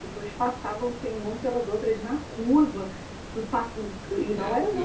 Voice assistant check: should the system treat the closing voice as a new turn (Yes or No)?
No